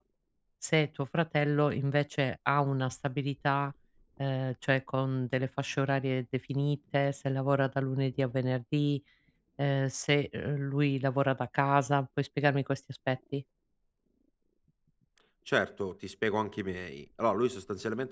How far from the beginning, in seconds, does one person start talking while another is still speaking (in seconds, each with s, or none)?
none